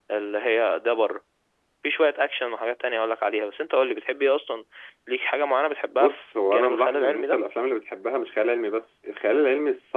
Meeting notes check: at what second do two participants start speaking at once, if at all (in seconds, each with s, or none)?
6.0 s